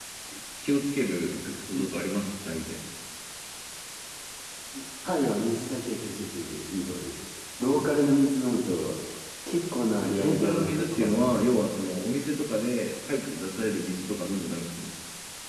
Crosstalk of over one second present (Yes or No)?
Yes